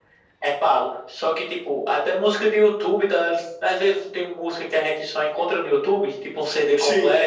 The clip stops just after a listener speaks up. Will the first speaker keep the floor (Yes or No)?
Yes